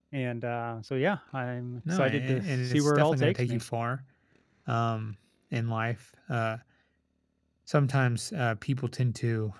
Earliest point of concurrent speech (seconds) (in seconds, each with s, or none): 1.9 s